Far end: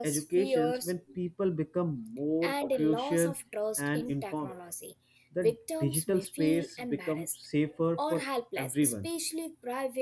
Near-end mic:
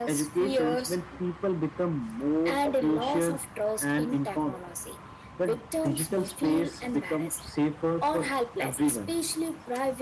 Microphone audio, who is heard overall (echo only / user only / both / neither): echo only